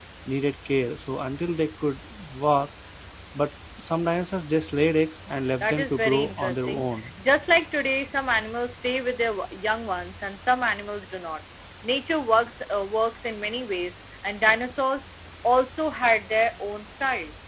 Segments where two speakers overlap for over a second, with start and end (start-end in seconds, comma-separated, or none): 5.6-6.9